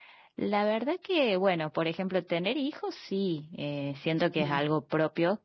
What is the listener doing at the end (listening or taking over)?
listening